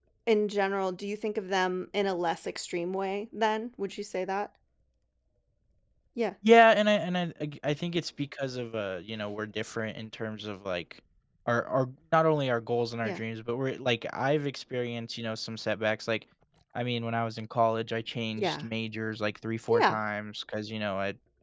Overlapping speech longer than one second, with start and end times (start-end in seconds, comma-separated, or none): none